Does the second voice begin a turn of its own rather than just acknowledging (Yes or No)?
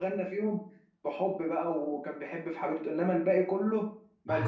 No